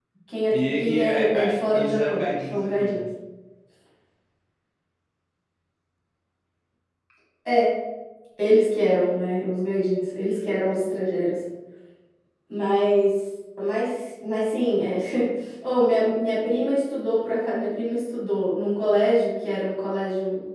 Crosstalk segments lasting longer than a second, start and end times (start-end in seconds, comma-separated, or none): 0.5-3.0